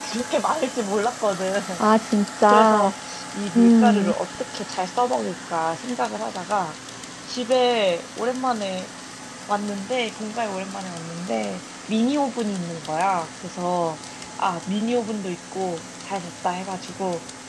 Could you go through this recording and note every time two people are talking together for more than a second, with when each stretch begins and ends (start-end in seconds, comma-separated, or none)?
none